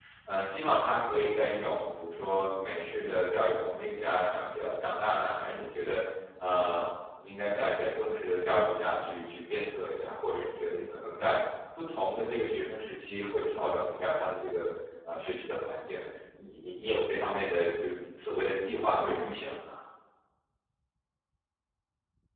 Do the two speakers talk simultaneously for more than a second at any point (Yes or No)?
No